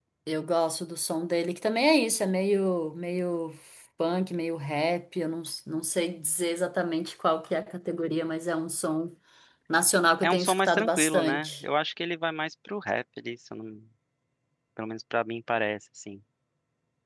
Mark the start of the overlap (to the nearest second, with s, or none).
10 s